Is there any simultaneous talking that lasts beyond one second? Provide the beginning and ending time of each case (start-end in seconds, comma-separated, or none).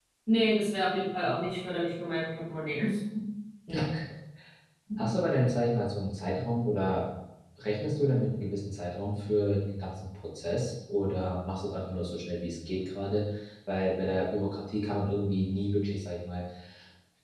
none